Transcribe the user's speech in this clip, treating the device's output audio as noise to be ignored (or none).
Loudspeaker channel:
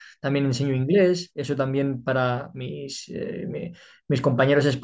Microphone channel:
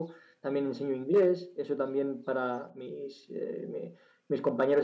none